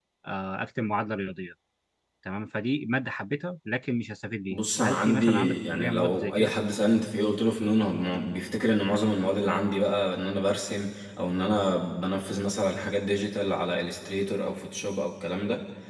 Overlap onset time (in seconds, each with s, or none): 4.5 s